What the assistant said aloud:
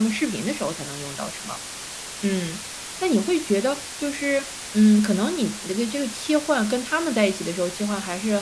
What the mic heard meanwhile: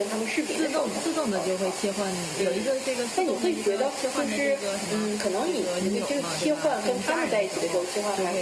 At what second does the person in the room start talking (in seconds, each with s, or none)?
0.5 s